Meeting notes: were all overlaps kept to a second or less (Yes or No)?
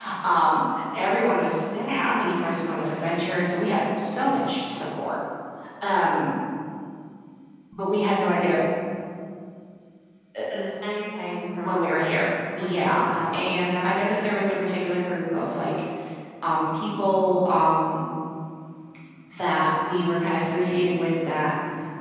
No